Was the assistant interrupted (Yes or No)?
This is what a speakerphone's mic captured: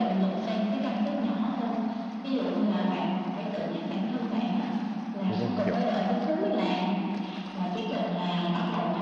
Yes